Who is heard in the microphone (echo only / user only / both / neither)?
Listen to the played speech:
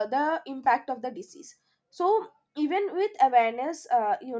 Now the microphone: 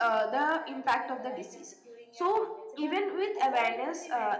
both